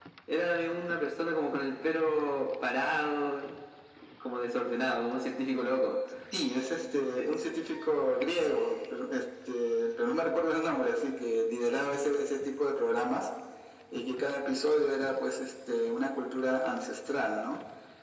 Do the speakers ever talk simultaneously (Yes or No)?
No